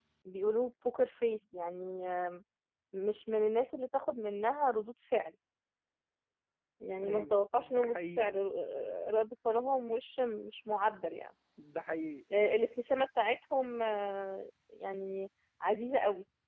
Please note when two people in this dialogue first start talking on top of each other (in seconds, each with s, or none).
7.0 s